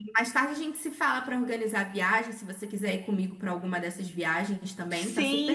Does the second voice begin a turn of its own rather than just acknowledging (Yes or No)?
Yes